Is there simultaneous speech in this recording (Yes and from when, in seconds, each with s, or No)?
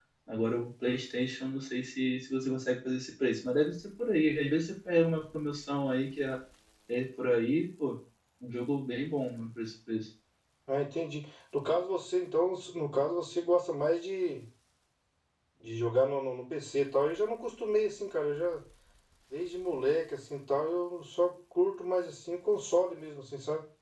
No